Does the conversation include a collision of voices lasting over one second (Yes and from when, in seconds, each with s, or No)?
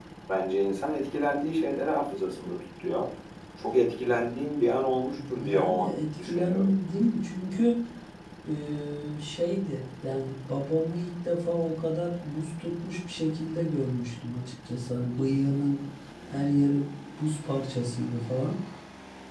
Yes, from 5.2 s